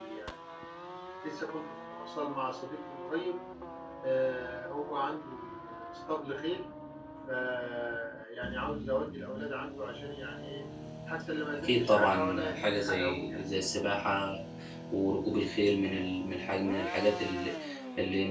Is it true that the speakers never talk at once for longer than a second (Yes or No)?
No